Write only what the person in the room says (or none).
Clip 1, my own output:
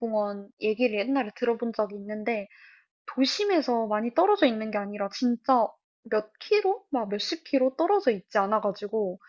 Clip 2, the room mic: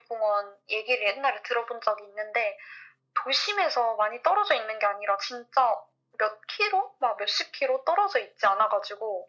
none